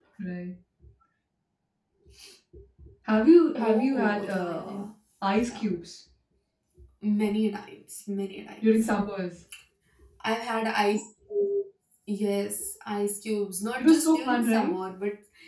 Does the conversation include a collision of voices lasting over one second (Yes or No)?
Yes